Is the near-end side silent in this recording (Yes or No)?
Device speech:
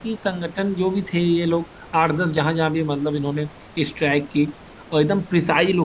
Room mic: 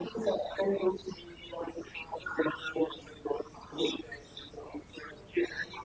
Yes